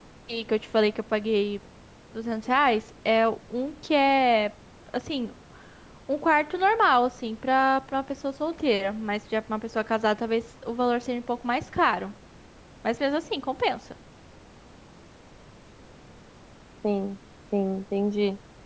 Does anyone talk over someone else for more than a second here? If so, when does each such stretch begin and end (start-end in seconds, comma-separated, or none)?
none